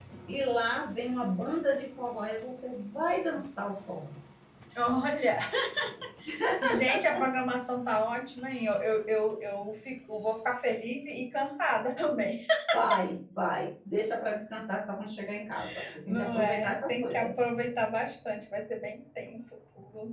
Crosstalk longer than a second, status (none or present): present